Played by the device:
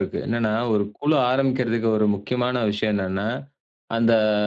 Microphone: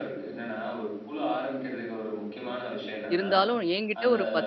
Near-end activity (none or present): present